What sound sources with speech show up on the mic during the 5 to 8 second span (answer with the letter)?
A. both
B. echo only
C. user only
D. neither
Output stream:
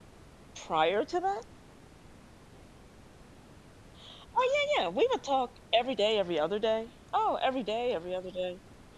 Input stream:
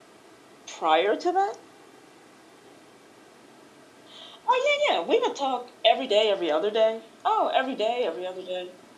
B